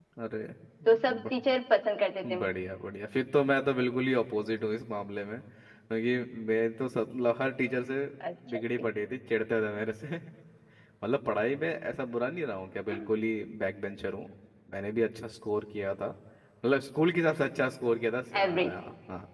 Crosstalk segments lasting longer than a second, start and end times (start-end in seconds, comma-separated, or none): none